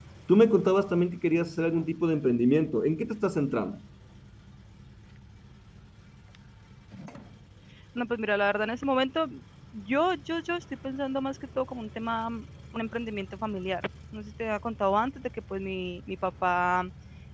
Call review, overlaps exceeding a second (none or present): none